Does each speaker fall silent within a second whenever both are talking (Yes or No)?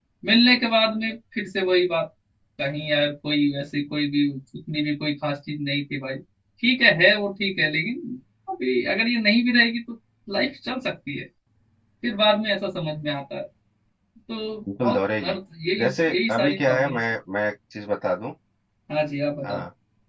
No